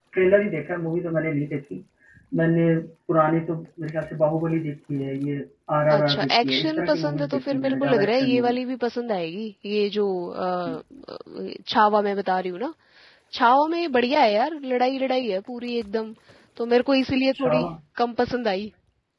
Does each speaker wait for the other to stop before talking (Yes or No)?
No